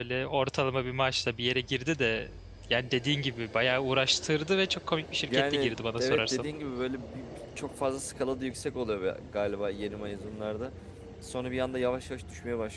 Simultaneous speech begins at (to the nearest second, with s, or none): 5 s